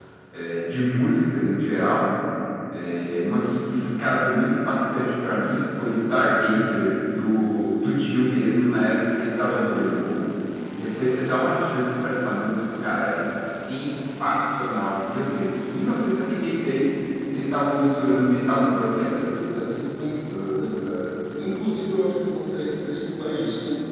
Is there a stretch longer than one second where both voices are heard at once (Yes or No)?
No